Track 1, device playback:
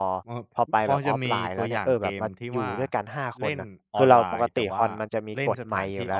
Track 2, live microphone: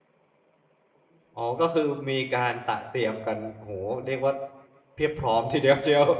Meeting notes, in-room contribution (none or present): present